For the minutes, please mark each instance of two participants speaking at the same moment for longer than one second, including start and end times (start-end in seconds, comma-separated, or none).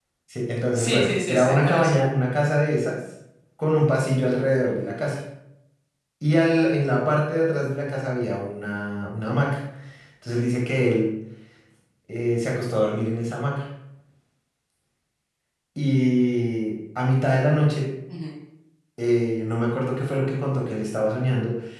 0.8-2.0